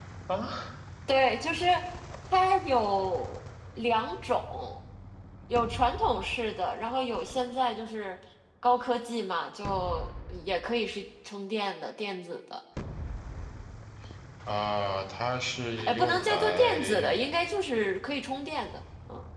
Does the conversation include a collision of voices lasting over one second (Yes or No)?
Yes